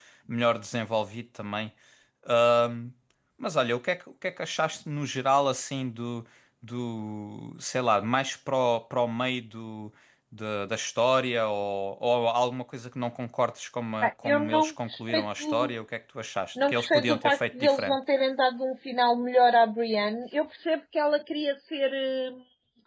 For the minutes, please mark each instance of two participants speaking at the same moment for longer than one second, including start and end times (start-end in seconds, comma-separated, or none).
14.0-15.7, 16.7-18.0